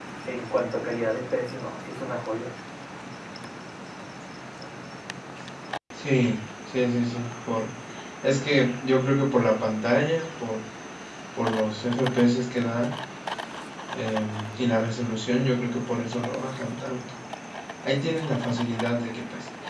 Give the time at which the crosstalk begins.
none

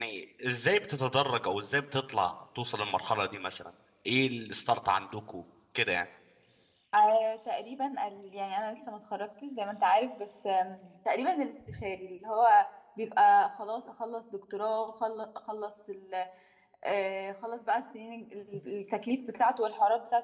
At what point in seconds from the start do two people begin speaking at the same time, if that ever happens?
none

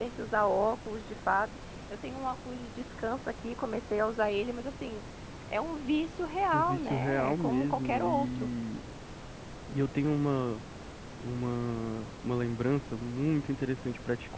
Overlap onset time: 6.5 s

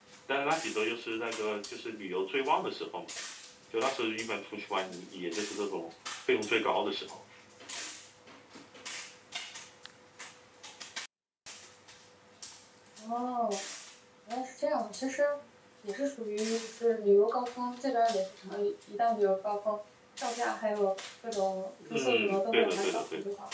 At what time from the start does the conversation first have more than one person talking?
21.8 s

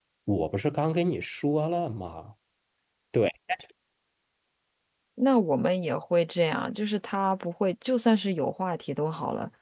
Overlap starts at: none

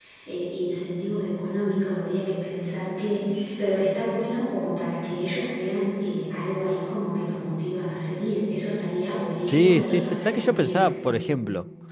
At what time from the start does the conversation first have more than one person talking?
9.5 s

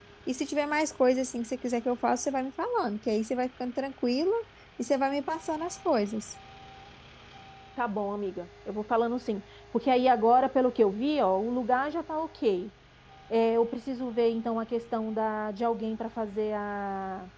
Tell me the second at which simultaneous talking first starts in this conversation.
none

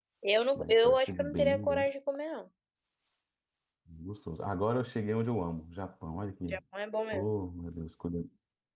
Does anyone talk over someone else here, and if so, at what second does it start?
0.6 s

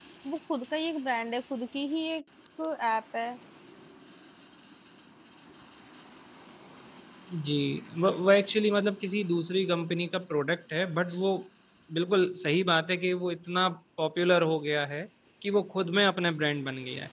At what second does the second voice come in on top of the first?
none

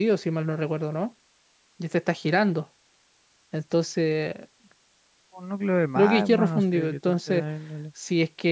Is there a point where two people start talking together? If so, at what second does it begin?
6.0 s

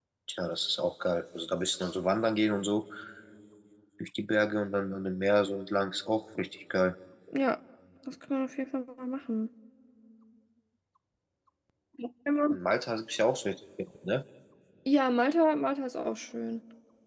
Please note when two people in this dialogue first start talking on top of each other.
none

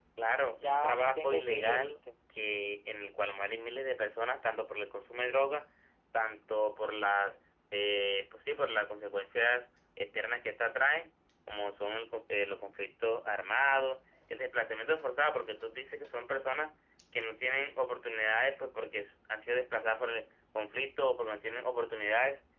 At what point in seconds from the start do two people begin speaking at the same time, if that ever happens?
0.6 s

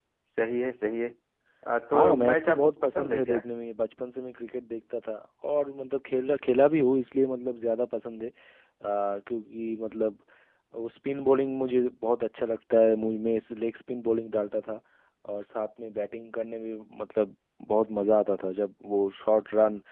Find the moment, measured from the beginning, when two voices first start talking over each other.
1.9 s

